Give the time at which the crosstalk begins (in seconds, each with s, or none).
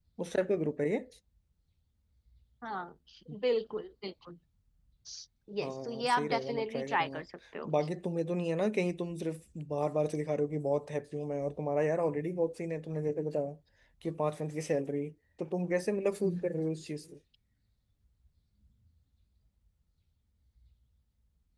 5.6 s